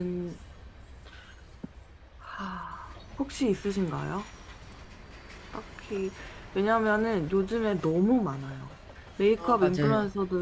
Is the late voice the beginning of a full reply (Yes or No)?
No